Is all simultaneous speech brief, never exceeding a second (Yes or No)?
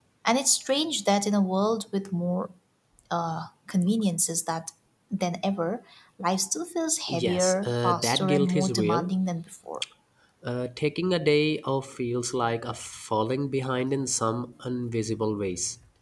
No